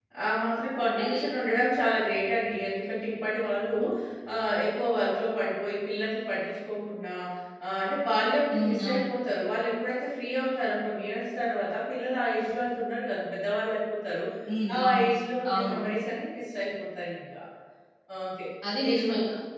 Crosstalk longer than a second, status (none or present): none